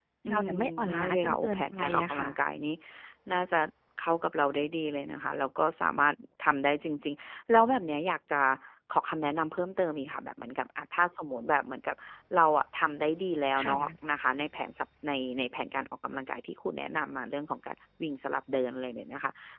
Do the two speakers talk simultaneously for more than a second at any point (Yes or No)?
Yes